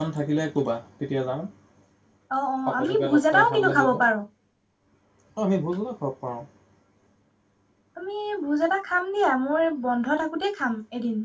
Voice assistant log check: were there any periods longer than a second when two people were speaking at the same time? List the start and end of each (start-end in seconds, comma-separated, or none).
2.7-3.9